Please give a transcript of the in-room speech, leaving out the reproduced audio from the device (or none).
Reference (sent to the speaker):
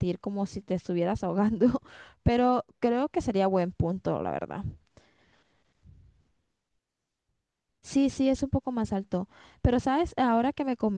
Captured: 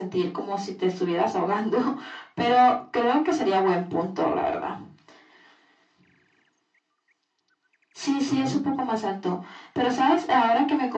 Ujú.